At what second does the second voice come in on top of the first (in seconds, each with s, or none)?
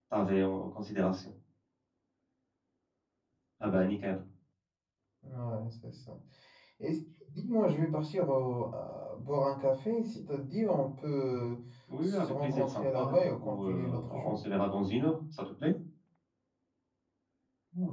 12.0 s